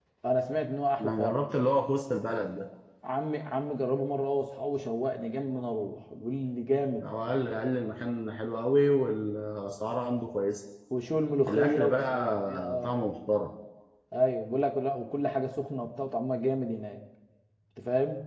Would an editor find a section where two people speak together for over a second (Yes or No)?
Yes